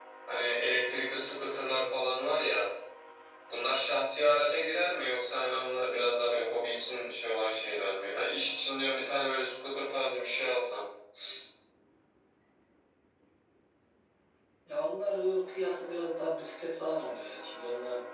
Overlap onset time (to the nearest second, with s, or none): none